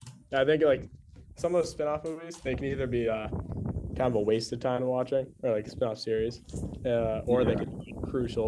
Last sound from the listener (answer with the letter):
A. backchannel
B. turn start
A